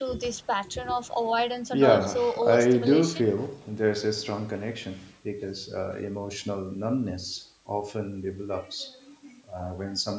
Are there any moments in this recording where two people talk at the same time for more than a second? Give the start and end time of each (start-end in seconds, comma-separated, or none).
1.7-3.2